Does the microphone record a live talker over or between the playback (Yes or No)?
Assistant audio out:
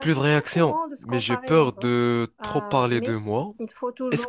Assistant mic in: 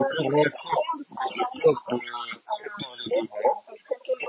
No